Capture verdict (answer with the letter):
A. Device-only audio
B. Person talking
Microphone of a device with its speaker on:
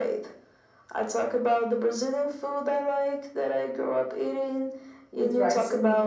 B